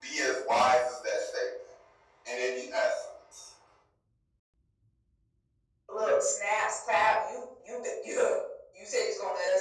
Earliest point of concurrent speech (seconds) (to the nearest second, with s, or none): none